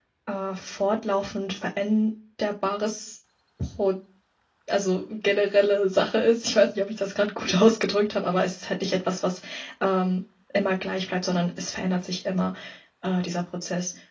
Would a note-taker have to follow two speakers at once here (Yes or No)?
No